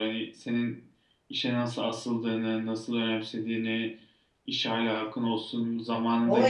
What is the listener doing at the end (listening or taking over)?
taking over